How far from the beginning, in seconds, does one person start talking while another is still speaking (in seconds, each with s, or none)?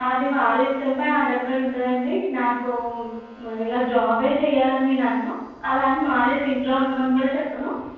none